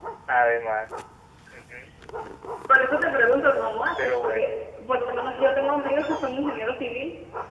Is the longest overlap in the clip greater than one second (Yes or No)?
No